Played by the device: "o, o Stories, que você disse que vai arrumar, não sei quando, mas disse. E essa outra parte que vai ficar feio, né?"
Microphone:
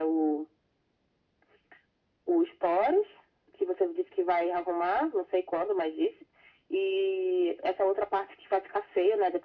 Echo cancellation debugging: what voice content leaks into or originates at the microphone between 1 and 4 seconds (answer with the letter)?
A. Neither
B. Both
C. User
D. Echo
D